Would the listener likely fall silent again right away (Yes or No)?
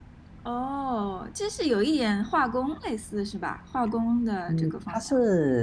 No